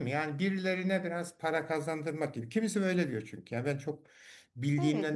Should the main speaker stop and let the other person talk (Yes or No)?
Yes